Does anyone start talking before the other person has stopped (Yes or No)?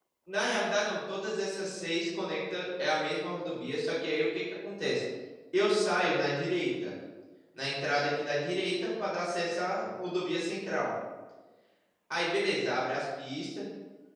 No